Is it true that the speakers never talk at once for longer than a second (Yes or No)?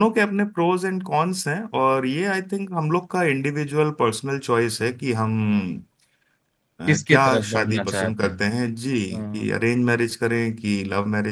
No